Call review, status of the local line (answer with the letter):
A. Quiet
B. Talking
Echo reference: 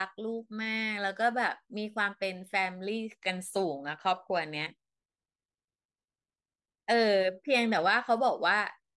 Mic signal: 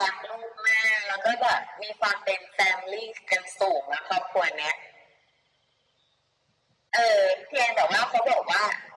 A